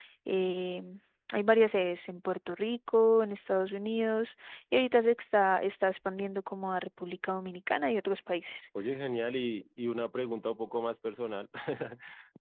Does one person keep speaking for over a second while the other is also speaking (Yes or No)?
No